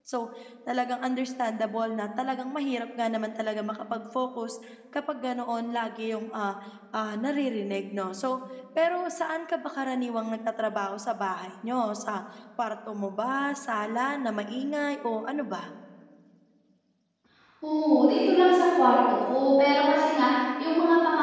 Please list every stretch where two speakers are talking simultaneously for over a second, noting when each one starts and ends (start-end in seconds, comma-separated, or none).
none